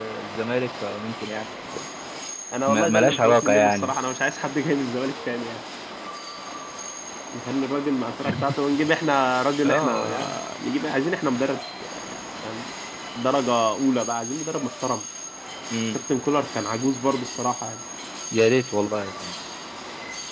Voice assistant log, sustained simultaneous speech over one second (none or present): present